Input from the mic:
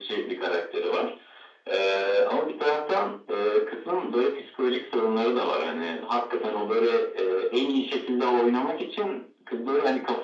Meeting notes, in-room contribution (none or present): none